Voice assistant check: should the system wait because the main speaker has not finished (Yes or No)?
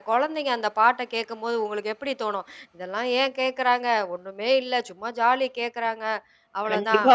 No